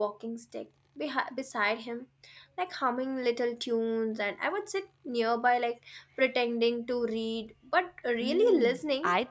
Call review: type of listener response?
taking over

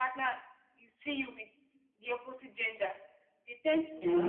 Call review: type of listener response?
listening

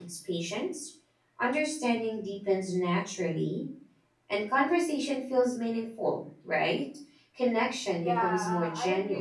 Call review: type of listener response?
taking over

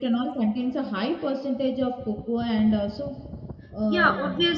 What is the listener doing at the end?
taking over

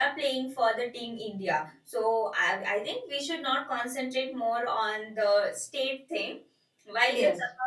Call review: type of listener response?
listening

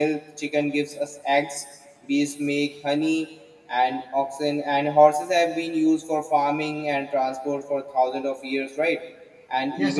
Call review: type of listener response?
taking over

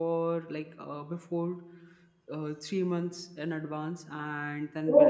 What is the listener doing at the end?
listening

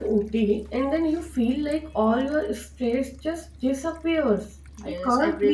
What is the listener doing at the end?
taking over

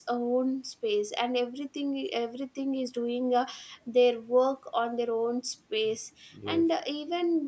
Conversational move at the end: listening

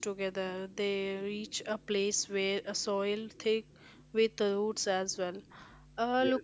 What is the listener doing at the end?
listening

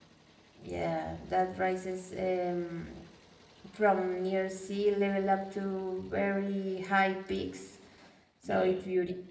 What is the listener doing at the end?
taking over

